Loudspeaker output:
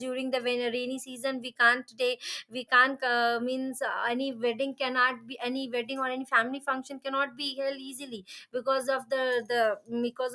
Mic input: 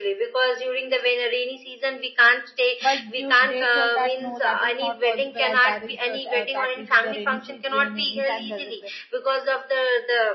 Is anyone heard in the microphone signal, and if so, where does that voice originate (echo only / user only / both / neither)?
both